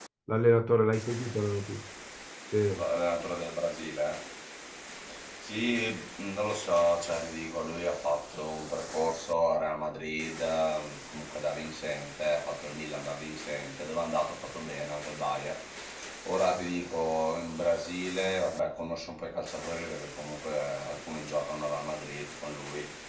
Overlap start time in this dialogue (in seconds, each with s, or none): none